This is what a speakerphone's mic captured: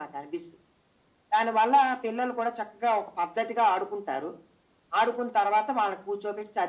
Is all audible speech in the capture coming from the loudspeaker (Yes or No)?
Yes